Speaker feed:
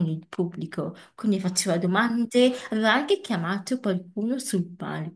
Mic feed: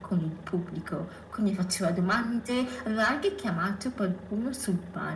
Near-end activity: none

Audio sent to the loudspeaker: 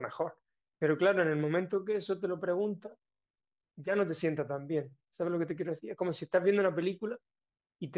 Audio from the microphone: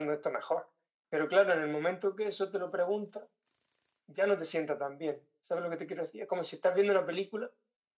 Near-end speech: none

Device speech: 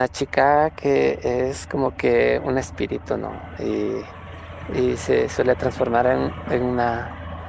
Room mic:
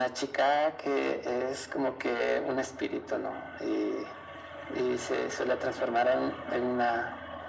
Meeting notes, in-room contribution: none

